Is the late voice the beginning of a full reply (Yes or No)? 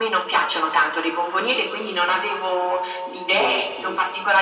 No